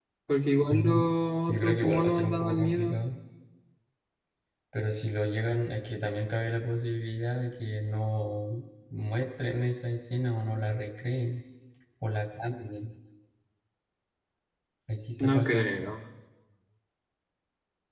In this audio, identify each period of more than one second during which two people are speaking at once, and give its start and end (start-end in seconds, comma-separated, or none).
1.5-3.0